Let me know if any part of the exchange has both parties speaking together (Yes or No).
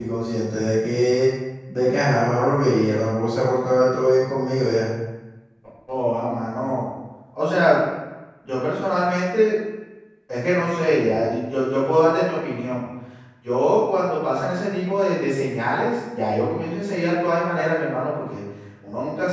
No